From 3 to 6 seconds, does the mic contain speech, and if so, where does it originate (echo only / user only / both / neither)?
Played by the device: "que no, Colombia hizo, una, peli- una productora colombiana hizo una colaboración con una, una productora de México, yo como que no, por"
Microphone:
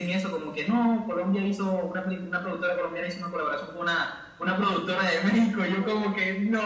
echo only